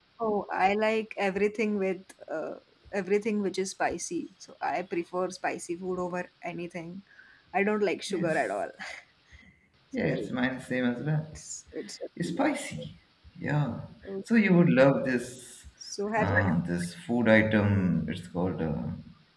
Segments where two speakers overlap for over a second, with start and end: none

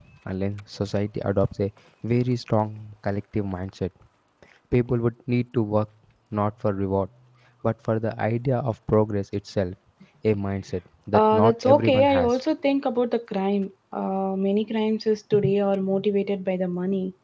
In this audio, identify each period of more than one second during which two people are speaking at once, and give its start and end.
11.1-12.4

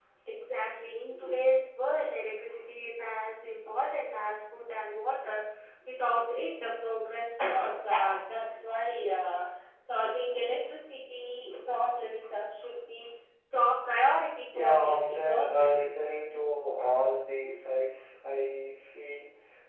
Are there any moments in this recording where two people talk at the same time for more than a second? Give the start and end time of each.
14.6-15.9

